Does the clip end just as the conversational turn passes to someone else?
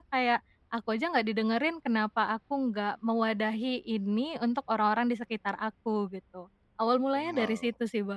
Yes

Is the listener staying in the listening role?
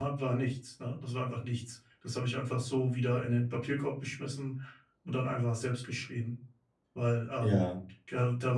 Yes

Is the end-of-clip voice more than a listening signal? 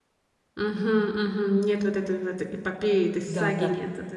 Yes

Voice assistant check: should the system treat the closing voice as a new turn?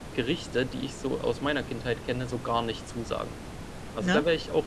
No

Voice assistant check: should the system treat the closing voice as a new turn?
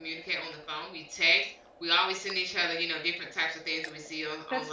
No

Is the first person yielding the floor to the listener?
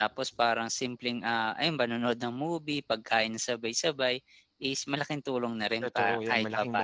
Yes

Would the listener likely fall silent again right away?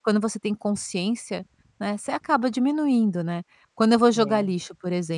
Yes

